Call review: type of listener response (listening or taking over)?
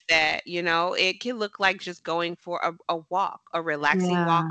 listening